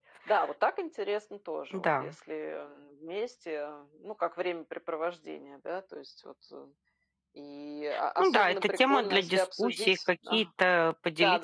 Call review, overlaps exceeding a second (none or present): present